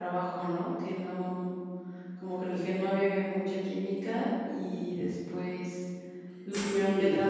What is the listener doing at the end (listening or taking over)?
listening